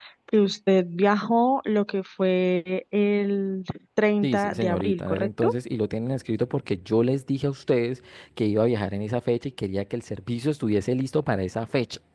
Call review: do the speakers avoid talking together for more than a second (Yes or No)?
No